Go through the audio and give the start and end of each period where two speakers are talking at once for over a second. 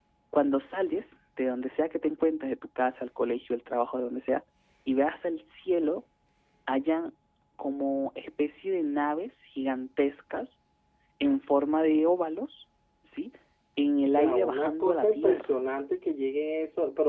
14.1-15.6

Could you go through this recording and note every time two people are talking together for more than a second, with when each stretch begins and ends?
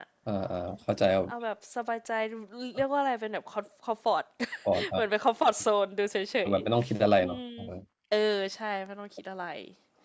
none

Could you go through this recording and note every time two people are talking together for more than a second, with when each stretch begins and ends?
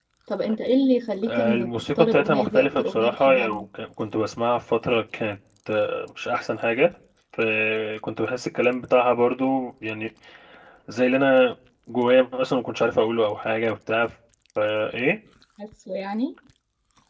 1.2-3.6

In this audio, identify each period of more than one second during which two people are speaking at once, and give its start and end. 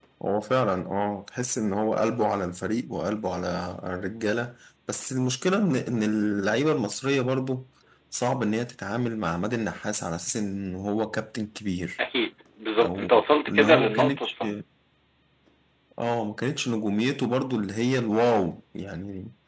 12.8-14.3

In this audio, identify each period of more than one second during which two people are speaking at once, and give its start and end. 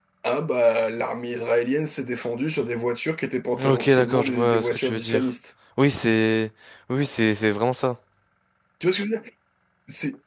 3.6-5.3

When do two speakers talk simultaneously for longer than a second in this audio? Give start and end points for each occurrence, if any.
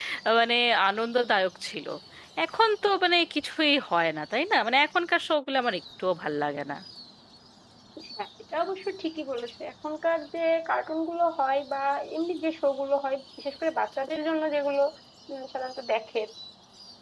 none

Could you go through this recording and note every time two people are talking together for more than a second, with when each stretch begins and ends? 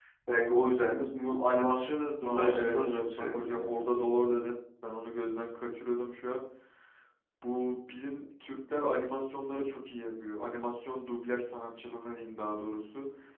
2.2-3.8

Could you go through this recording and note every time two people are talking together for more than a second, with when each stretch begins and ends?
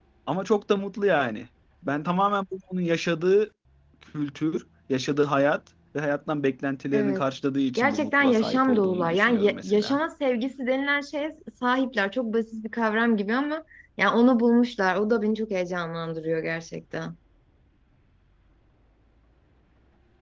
7.8-10.0

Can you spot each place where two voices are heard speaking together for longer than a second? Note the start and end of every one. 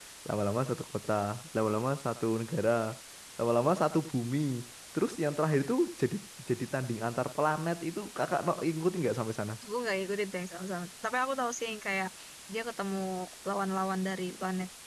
none

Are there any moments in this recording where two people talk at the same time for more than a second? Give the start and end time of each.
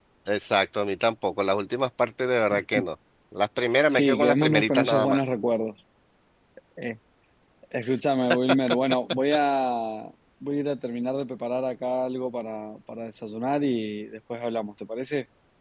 3.9-5.2

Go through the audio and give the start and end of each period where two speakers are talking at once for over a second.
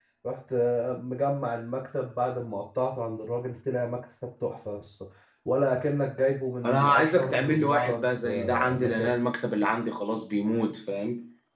6.6-9.1

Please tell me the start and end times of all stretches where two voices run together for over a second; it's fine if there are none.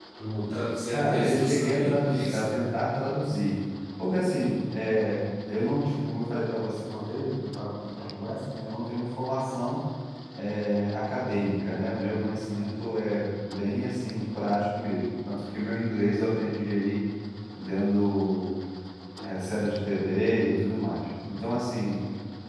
0.9-2.5

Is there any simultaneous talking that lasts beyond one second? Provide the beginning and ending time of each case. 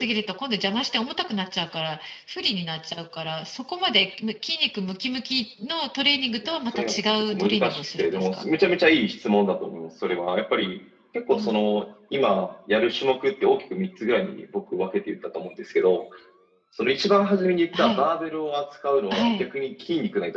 6.4-8.4

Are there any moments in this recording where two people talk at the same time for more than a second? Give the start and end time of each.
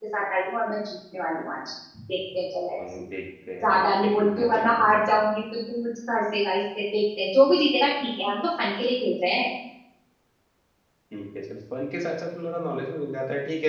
3.6-5.0

